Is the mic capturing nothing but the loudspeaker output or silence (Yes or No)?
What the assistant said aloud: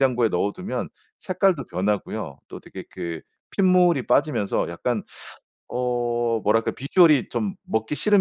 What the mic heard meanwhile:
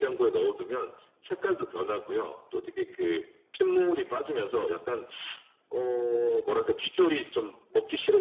Yes